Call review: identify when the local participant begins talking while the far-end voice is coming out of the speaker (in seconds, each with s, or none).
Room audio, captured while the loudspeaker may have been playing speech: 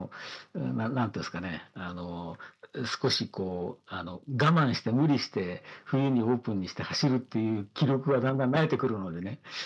none